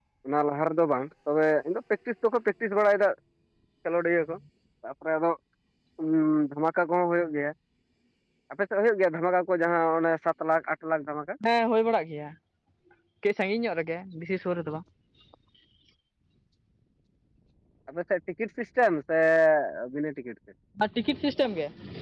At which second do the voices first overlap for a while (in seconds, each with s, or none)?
none